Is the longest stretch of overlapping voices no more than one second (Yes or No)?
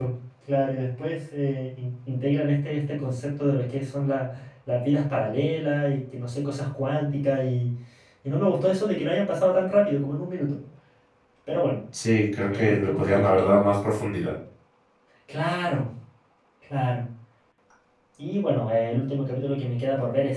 No